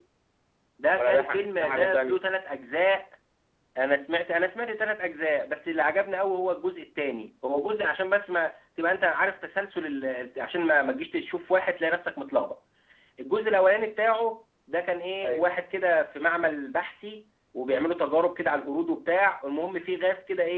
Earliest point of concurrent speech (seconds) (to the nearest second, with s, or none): 1 s